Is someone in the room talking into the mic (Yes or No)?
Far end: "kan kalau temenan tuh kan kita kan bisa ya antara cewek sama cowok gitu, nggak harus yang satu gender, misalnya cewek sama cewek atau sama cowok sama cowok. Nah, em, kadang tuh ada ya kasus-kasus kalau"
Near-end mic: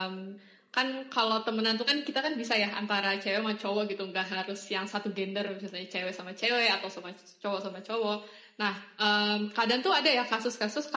No